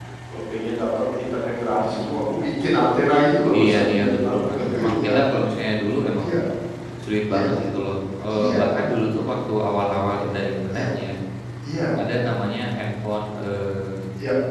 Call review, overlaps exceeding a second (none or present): present